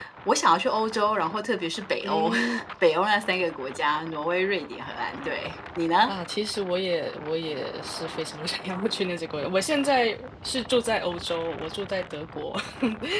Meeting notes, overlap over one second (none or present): none